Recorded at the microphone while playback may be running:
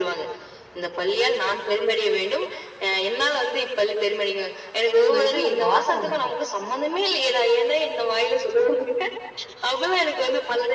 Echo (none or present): present